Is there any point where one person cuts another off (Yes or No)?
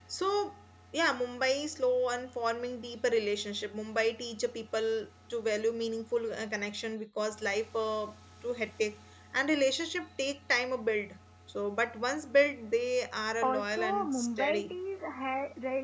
Yes